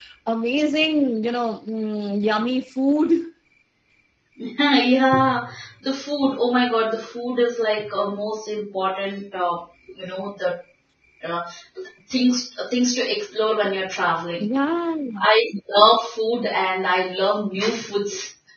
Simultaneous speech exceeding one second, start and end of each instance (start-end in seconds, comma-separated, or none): none